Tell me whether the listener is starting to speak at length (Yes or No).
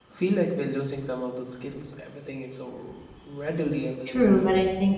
Yes